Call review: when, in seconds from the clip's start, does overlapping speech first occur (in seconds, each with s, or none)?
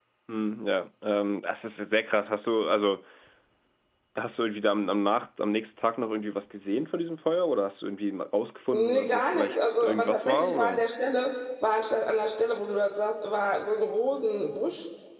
8.7 s